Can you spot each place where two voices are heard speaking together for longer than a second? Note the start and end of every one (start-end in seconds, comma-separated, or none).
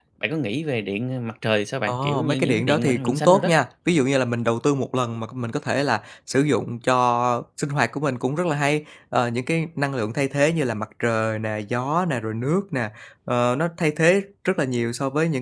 1.9-3.5